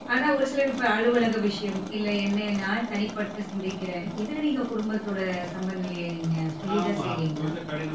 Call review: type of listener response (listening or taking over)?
taking over